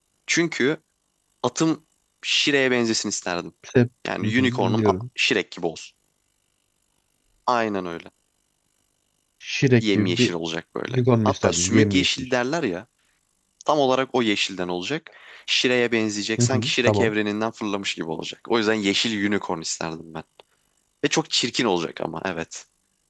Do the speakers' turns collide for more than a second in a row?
Yes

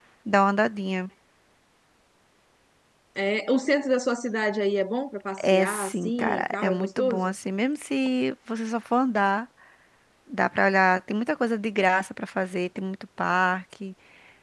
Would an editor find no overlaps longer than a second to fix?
No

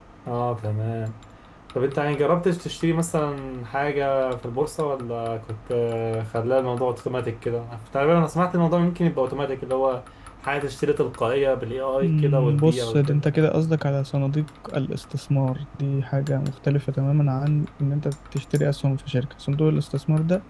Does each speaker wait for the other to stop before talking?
No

